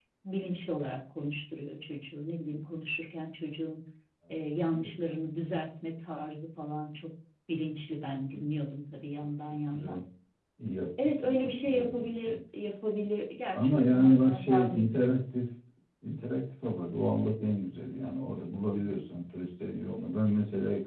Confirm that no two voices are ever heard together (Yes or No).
No